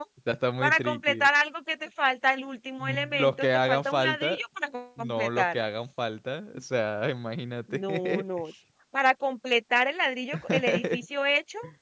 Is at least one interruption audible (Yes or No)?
Yes